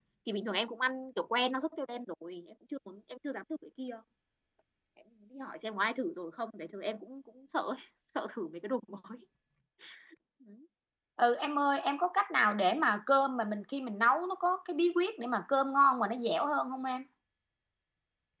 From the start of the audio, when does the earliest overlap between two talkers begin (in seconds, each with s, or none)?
none